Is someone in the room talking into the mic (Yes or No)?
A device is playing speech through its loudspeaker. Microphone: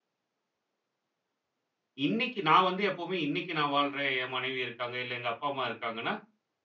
Yes